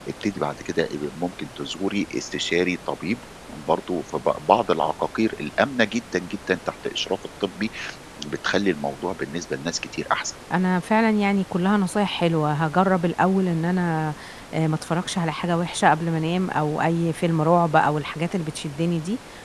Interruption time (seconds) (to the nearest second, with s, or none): none